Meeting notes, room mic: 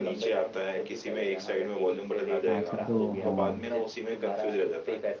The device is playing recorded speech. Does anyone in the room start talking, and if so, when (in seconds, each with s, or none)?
2.5 s